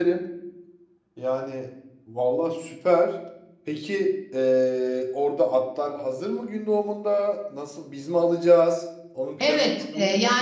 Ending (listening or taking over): taking over